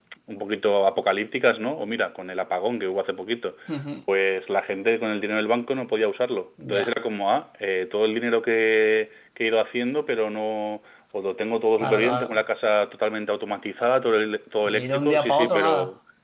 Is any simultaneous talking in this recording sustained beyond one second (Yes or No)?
Yes